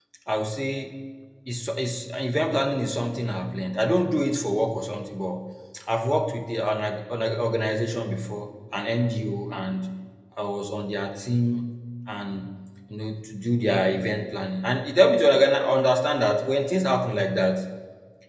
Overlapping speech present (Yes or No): No